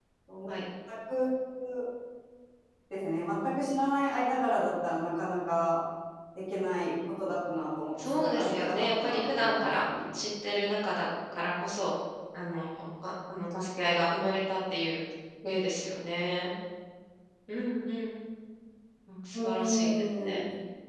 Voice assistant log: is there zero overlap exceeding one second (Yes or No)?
No